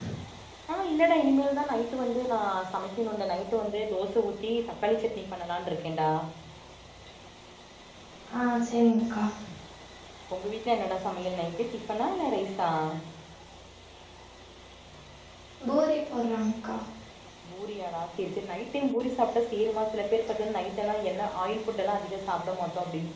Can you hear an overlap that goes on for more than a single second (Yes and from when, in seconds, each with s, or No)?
No